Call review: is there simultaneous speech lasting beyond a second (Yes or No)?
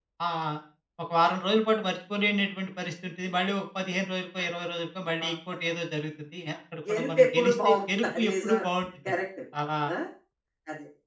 Yes